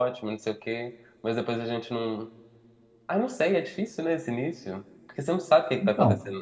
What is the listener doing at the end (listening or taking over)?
listening